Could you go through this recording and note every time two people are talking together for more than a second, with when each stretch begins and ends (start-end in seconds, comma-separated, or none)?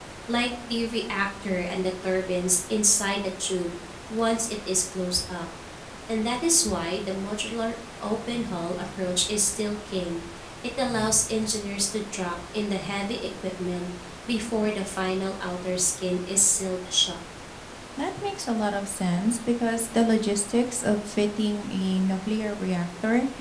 none